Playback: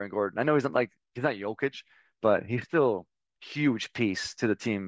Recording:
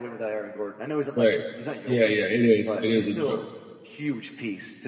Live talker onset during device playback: 1.1 s

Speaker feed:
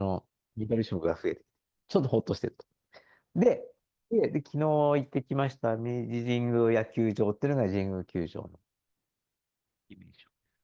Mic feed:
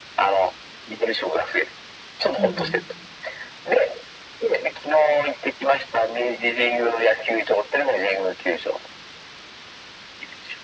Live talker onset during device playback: 2.4 s

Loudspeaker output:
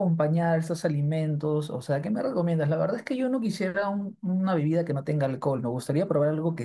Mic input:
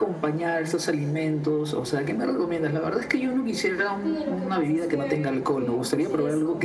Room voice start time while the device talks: 4.0 s

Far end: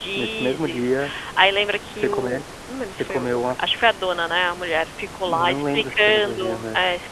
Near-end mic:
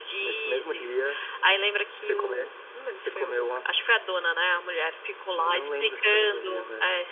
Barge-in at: none

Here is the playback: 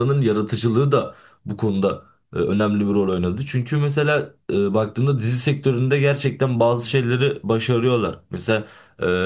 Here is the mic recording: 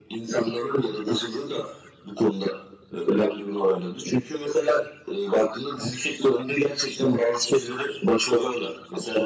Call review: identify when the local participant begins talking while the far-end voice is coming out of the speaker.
none

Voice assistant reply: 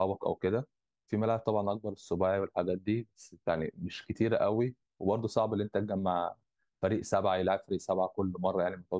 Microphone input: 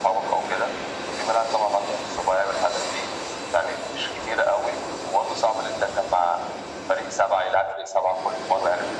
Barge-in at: none

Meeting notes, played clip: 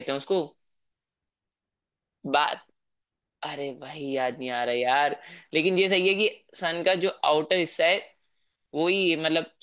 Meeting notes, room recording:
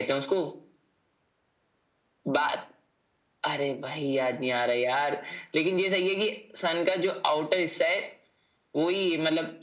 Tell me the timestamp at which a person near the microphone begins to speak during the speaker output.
none

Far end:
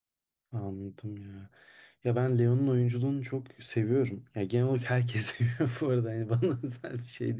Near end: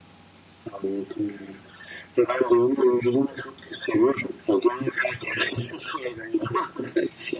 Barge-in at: none

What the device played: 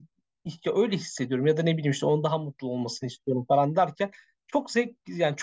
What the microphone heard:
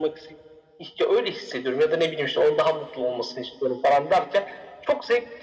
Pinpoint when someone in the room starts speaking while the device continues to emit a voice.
none

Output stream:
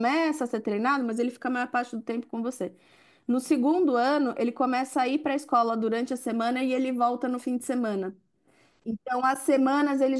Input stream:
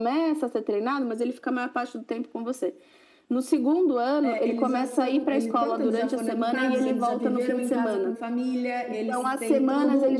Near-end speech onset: 4.2 s

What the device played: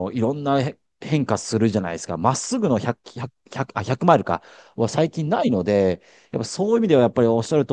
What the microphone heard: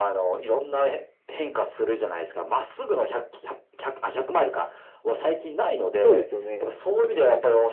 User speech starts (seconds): 6.0 s

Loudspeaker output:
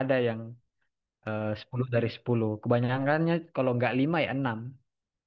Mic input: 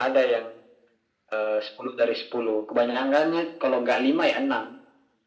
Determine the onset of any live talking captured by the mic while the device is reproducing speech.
none

